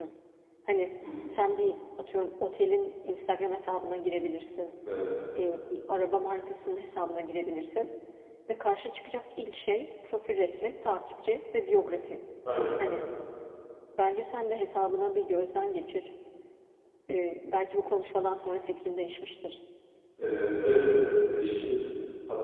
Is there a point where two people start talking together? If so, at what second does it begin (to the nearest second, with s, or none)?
none